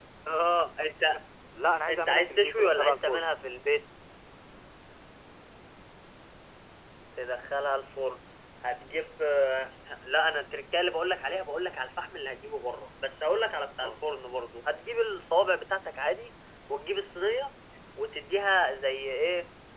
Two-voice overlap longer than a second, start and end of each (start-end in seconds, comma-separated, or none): 1.9-3.2